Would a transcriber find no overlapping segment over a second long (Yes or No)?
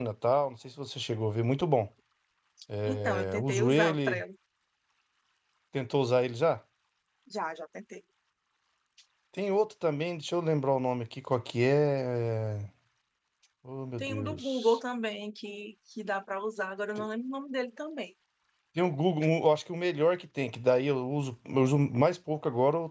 No